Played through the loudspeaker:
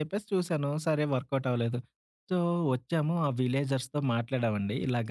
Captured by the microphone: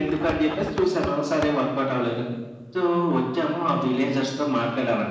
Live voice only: none

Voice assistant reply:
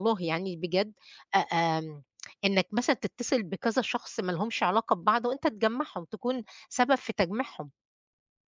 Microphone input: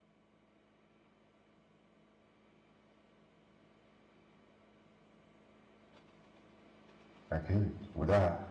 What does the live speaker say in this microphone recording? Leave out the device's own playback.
أكيد، وده

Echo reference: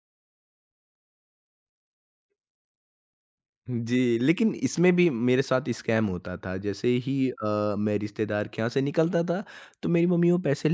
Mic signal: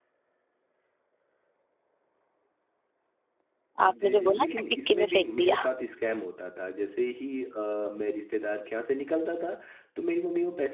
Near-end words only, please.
आपने जो बोला ना डिक्की में फेंक दिया,

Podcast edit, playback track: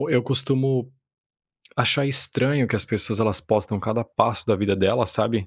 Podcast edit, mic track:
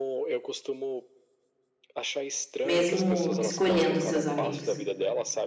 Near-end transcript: mesmo escolhendo seus amigos.

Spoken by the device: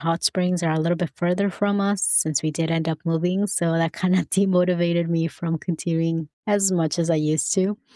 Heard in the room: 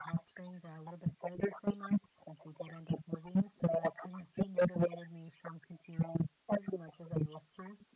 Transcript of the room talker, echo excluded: none

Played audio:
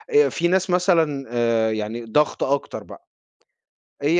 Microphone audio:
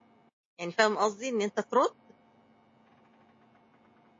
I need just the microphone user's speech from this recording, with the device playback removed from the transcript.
يعني فاهم قصدي، إن أنت ترُد

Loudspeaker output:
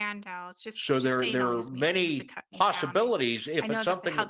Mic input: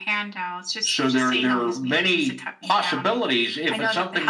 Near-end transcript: none

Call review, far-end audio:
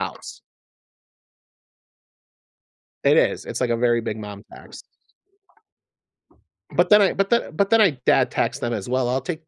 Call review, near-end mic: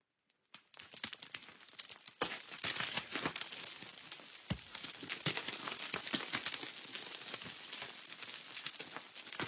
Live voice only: none

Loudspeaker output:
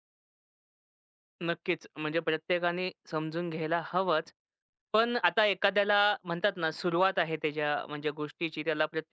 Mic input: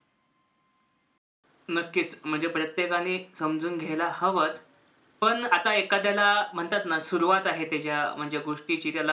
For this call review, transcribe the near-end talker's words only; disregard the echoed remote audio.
none

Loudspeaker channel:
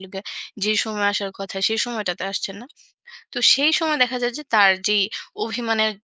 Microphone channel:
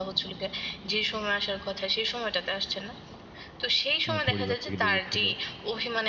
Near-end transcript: আ পরিবার থেকে দূরে ছিল।

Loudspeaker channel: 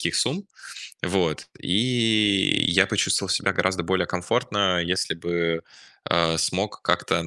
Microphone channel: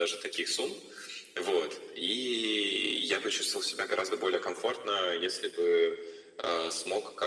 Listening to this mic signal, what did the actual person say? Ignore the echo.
none

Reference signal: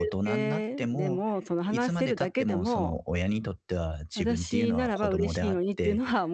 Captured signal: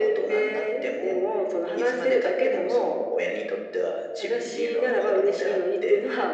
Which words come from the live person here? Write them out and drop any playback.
none

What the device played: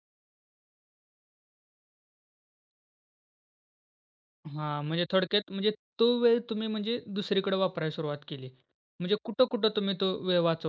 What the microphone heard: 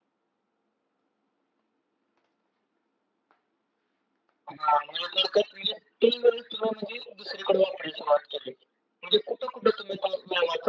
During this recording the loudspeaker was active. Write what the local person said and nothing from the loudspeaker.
none

